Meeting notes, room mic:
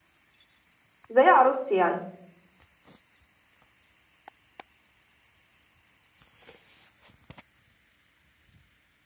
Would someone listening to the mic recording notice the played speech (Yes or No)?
No